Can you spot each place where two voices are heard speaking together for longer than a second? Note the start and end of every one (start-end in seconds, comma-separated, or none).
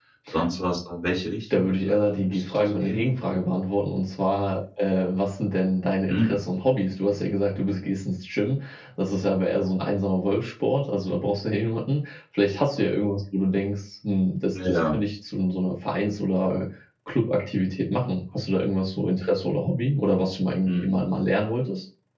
1.5-3.0